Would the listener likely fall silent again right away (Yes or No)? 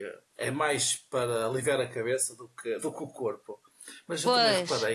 Yes